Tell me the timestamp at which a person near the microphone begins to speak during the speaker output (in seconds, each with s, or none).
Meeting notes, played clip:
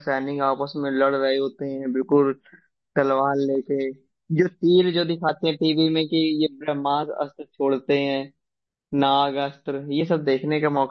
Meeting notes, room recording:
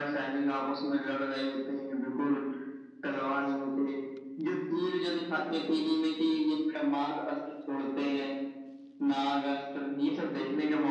none